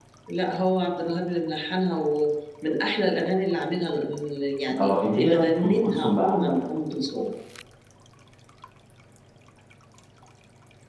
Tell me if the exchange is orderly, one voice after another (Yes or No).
No